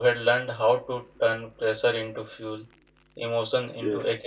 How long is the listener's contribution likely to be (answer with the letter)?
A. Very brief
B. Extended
A